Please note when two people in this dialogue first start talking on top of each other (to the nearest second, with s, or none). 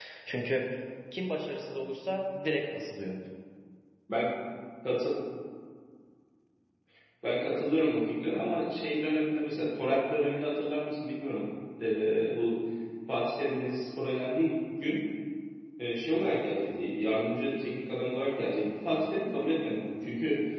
none